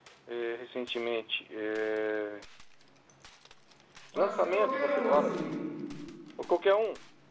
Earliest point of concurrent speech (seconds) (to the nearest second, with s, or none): 4 s